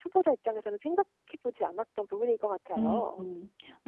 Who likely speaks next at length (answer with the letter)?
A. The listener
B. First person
A